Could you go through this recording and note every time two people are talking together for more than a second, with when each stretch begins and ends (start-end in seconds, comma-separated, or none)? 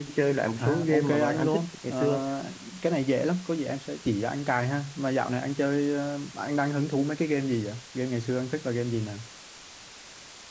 0.6-2.2